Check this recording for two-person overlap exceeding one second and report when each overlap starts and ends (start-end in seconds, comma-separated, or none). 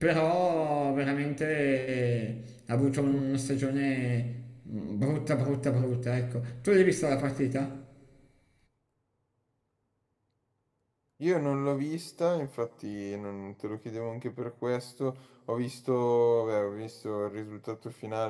none